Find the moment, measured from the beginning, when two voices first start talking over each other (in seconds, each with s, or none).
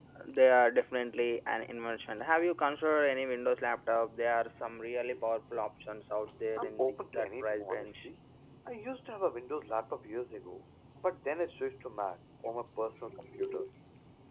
6.6 s